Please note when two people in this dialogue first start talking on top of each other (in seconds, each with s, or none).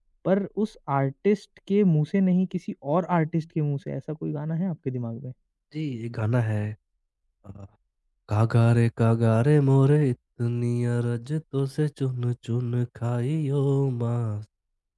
none